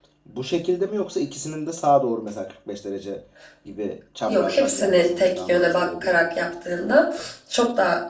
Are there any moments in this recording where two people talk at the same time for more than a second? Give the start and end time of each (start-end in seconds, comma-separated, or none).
4.3-6.2